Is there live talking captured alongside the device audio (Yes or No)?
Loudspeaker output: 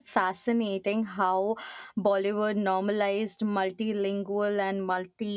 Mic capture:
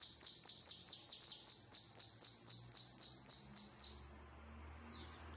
No